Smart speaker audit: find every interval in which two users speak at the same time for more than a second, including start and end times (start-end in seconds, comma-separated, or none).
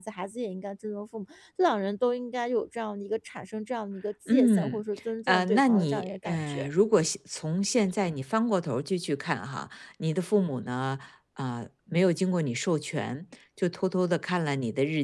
5.3-6.7